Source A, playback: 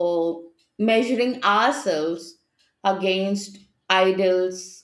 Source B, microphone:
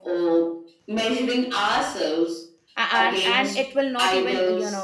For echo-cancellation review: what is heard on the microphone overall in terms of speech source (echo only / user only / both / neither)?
both